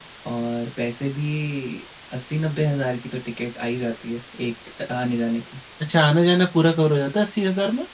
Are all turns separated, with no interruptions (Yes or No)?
Yes